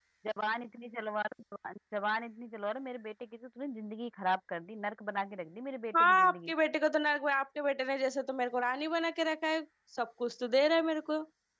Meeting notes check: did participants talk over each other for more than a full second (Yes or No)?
No